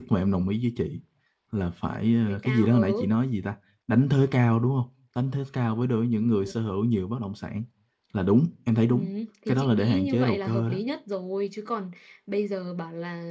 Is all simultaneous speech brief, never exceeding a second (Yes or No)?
No